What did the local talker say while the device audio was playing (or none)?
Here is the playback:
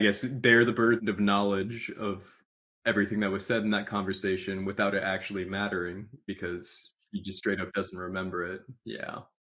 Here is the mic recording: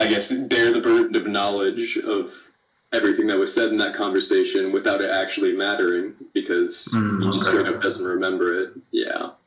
Mm, okay.